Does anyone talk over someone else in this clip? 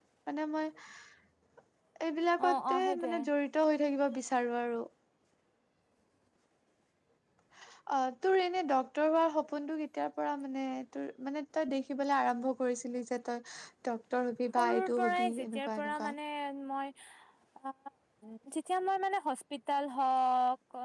Yes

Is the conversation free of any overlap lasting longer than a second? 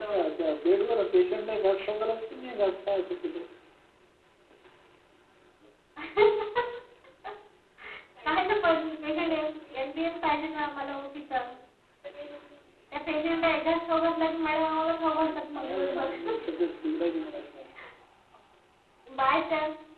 No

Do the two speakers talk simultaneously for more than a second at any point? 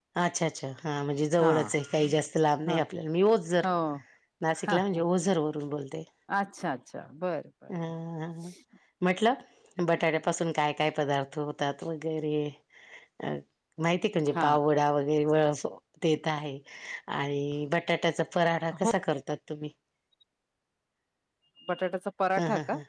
No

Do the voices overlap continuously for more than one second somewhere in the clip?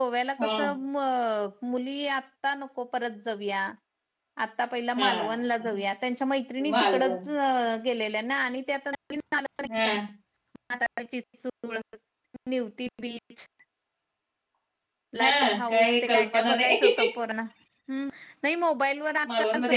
Yes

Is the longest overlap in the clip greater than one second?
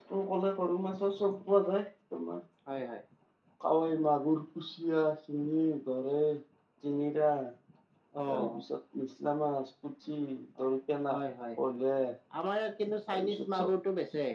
No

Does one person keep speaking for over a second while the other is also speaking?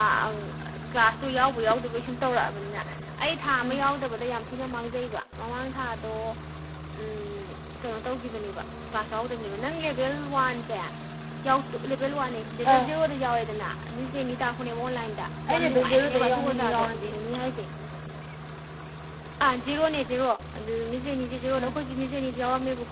Yes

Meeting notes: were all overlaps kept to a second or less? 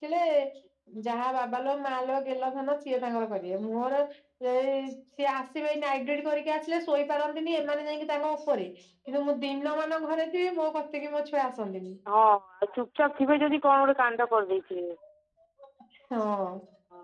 Yes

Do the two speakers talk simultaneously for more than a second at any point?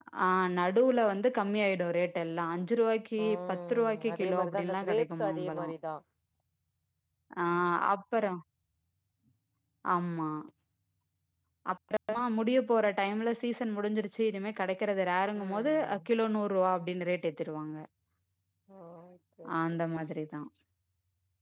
Yes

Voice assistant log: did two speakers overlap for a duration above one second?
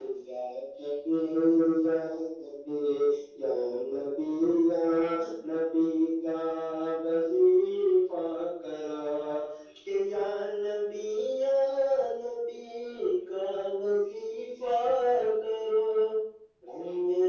No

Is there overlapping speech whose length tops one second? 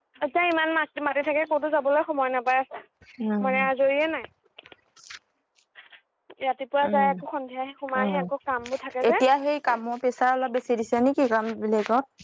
No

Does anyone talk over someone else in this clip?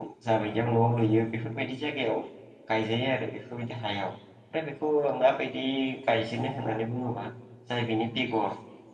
No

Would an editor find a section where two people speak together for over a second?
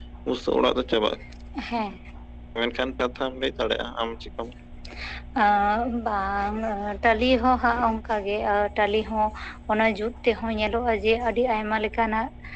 No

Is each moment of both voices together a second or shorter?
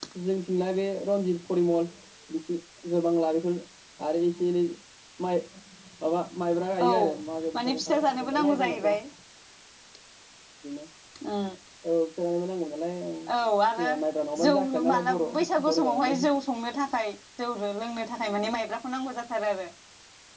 No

